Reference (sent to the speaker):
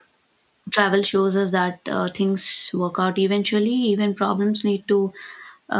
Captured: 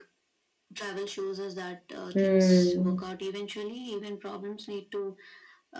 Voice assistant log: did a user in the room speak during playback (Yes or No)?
Yes